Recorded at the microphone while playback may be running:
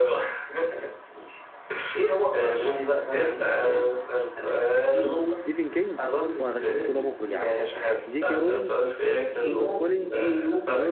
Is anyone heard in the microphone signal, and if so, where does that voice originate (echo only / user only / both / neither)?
both